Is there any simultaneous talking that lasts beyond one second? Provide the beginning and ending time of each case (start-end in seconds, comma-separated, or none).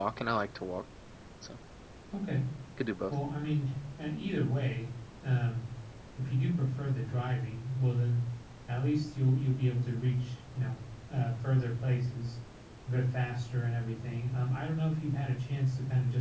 none